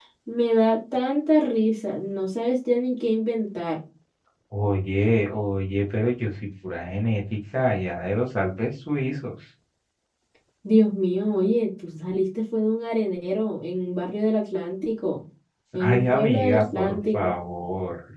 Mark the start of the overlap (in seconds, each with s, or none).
15.8 s